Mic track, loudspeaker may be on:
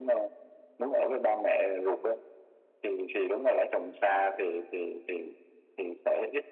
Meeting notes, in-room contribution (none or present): none